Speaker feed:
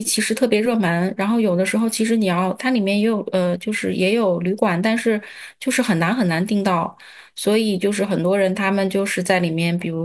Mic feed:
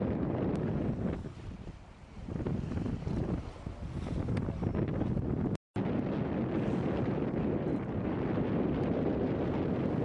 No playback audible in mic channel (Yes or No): Yes